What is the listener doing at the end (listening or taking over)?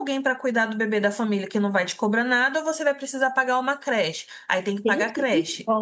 taking over